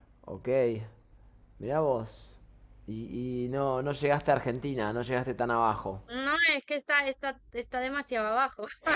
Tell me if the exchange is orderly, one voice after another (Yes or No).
Yes